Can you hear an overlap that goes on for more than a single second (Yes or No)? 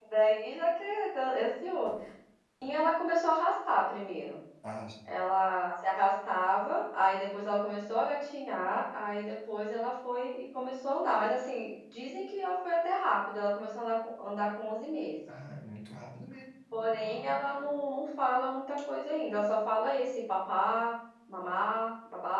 No